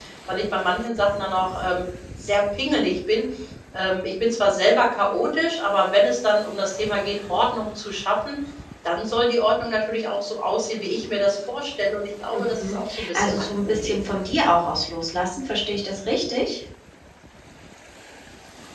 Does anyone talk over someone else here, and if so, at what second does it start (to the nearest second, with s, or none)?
12 s